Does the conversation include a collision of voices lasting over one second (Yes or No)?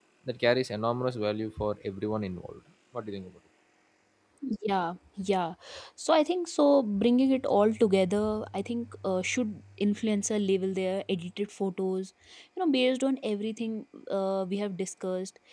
No